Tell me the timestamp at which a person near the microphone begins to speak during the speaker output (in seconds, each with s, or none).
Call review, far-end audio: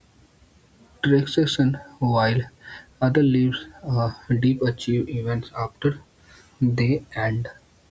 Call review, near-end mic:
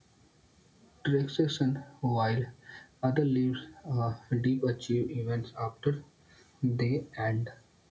none